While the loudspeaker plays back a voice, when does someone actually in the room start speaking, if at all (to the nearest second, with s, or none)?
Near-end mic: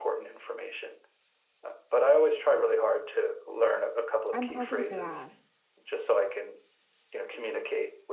4 s